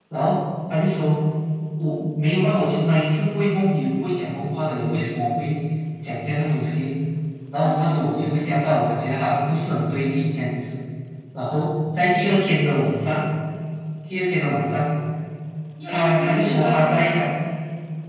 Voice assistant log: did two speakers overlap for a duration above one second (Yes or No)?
Yes